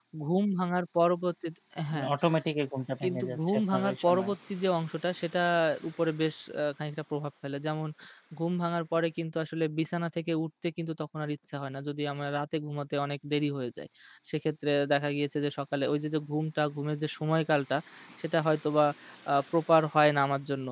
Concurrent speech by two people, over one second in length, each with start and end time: 3.0-4.3

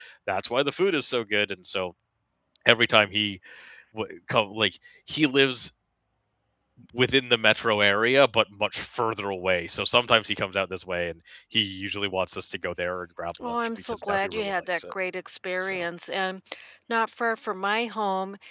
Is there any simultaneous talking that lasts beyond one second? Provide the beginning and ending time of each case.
13.4-14.9

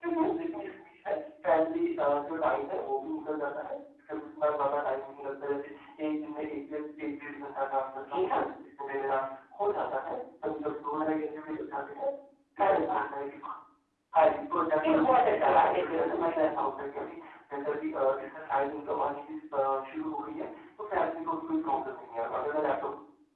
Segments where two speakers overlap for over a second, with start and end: 14.9-16.5

